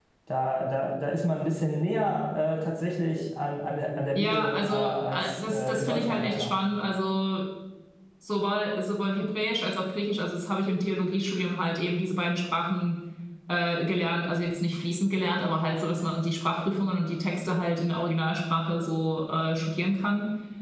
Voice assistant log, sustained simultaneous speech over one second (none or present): present